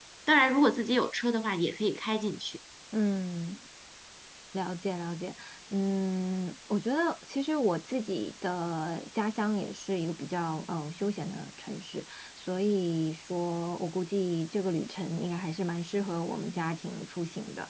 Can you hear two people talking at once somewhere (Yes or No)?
No